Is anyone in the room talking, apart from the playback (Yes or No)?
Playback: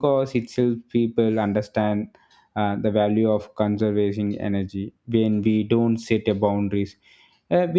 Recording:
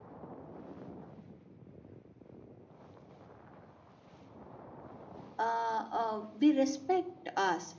Yes